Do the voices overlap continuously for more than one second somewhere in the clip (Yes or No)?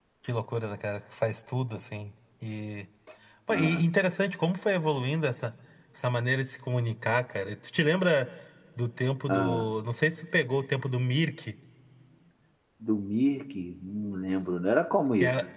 No